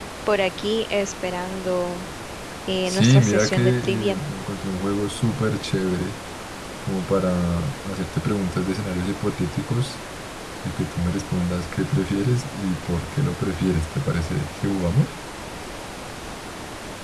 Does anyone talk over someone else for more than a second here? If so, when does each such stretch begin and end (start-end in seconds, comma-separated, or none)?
2.8-4.2